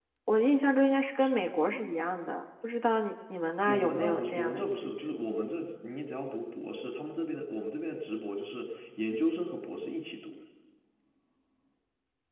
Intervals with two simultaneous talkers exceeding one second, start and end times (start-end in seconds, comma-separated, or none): 3.7-5.1